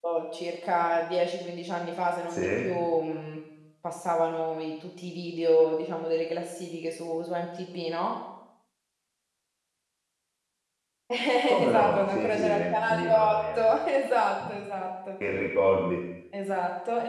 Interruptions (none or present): present